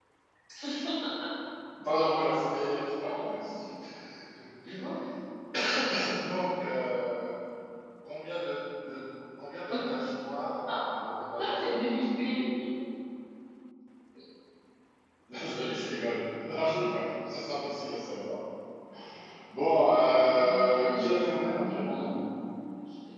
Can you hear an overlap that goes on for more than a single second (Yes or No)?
Yes